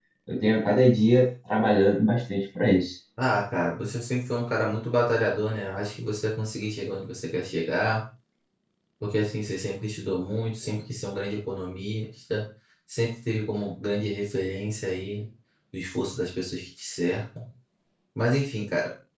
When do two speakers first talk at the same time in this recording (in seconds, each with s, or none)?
none